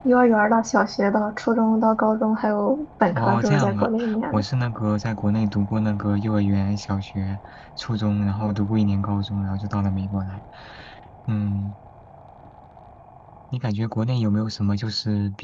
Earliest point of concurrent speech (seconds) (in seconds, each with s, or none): 3.1 s